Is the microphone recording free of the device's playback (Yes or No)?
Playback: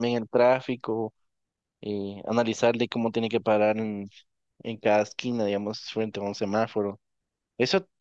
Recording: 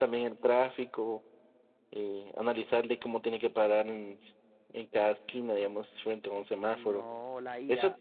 No